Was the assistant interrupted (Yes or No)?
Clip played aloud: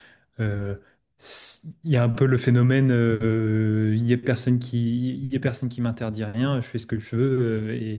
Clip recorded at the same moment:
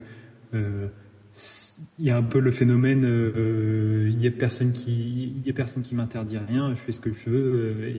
No